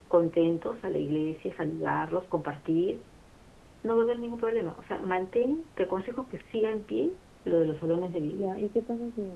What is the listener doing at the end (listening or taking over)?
taking over